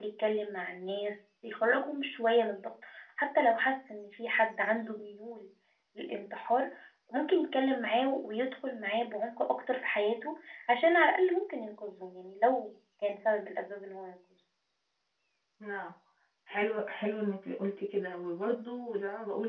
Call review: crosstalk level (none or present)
none